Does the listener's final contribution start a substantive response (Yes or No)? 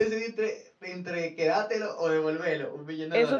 Yes